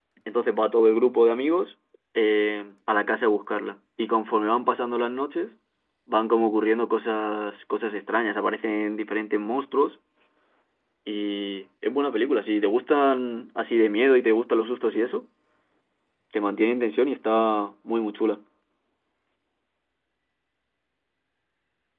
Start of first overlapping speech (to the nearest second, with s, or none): none